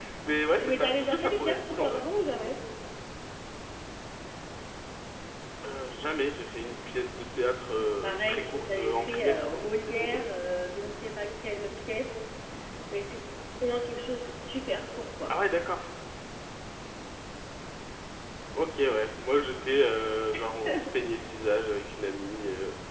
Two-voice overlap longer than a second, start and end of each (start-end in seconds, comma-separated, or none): 0.6-2.0, 8.0-10.1